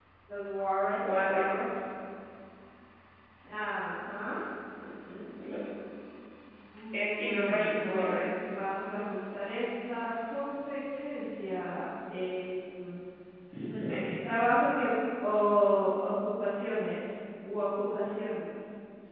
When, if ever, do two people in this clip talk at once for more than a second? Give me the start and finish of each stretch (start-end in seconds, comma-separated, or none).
6.9-8.2